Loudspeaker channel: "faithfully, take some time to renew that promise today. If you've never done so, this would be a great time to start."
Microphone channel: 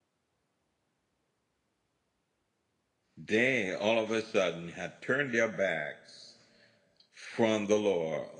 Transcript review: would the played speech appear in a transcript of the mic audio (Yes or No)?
No